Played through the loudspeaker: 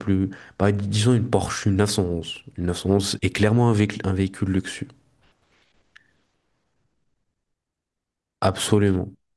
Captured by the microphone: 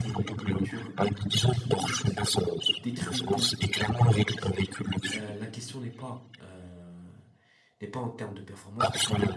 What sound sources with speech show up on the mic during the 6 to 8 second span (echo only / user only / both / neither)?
user only